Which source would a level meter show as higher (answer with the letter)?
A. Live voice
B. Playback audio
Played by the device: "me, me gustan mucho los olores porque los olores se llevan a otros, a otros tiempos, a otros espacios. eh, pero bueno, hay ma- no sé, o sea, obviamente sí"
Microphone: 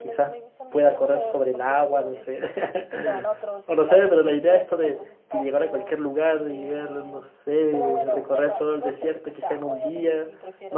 A